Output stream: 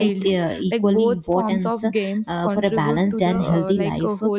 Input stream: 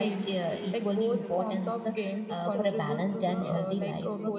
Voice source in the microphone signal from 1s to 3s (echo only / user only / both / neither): both